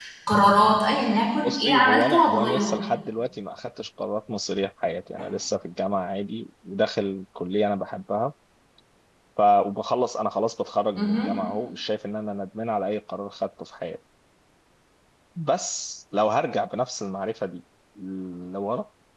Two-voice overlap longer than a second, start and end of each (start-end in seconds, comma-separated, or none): 1.4-2.8